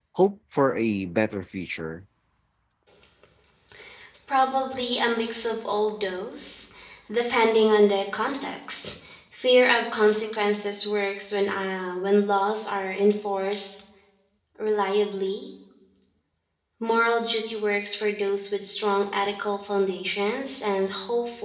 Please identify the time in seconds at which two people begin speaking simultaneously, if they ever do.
none

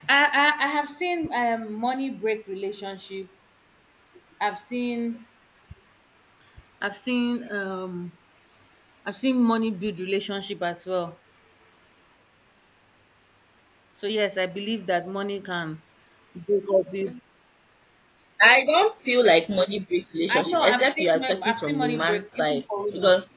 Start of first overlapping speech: 20 s

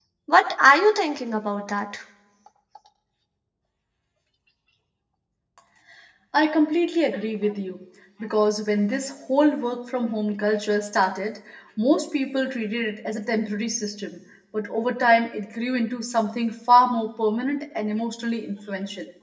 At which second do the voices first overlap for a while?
none

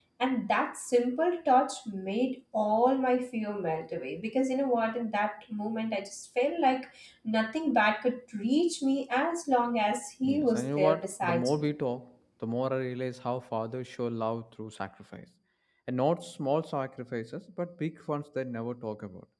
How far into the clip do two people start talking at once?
10 s

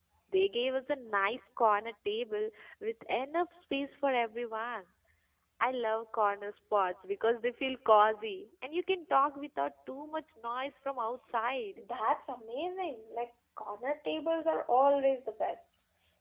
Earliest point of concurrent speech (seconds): none

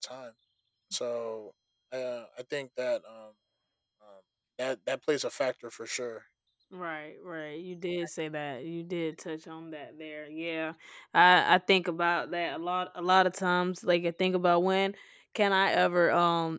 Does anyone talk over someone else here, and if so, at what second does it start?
none

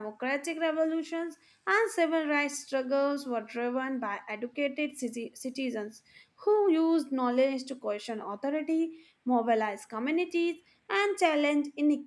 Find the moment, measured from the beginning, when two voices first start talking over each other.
none

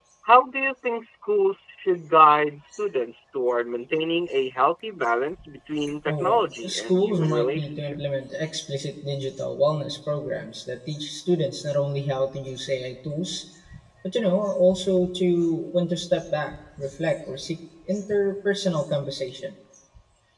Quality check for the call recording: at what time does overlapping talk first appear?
6 s

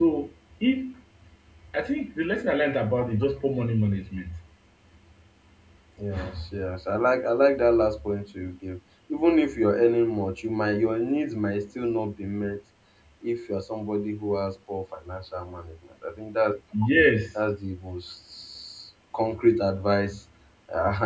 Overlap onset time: none

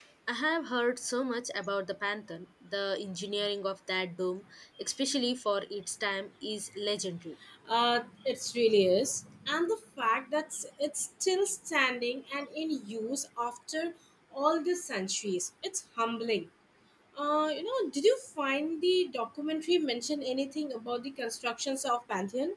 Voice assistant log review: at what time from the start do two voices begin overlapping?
none

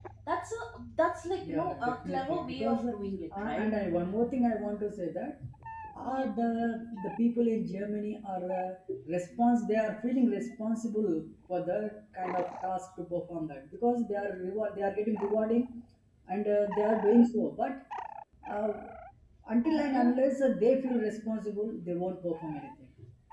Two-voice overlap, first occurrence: 1 s

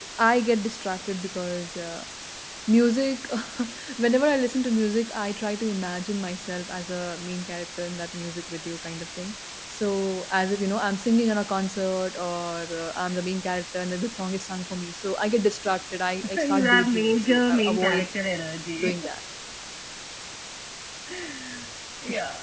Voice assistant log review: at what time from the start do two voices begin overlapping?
16 s

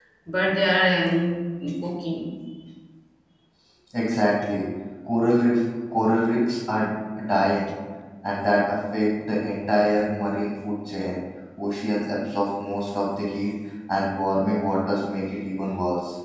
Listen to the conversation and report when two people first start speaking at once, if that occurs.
none

